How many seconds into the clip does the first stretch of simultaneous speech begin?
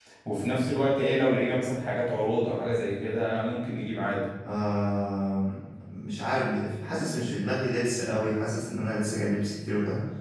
none

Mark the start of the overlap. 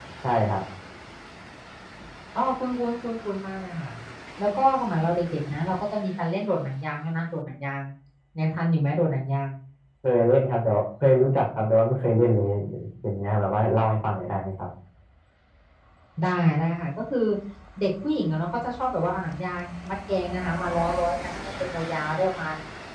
none

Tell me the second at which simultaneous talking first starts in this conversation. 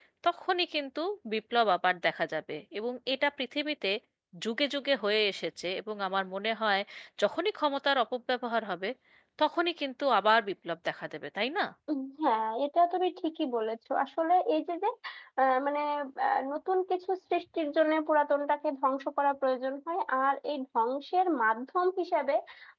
none

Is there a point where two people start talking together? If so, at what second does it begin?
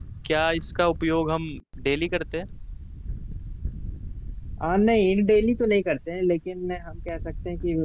none

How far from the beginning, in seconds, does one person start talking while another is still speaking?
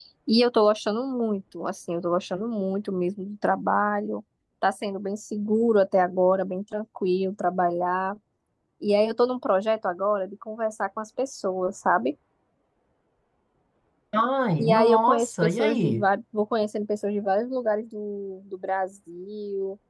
15 s

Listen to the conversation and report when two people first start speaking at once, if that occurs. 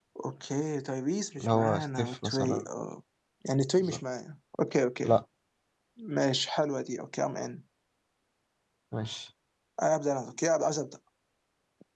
1 s

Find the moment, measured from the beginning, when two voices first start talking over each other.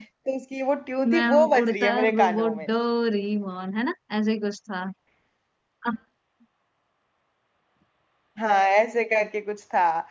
1 s

